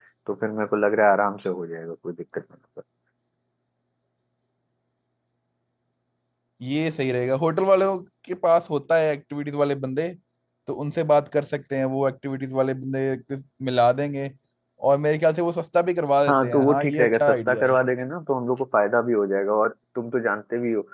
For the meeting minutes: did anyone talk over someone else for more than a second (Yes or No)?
Yes